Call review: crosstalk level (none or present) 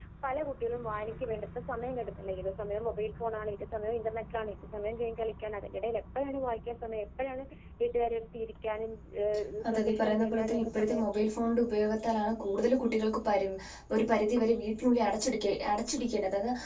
present